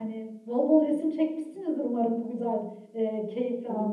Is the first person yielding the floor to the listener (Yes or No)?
Yes